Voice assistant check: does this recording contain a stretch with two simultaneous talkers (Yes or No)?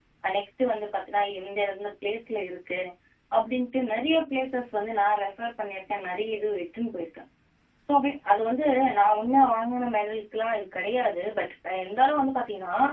No